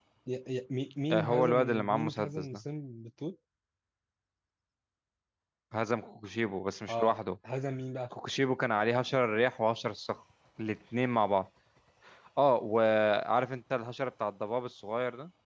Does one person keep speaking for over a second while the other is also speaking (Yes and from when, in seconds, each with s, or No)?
Yes, from 1.1 s